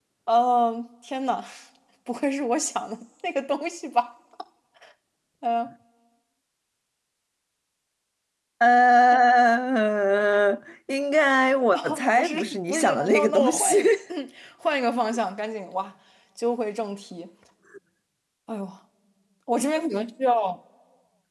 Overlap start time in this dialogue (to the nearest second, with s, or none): 12 s